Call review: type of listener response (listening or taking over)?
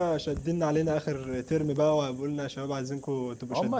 taking over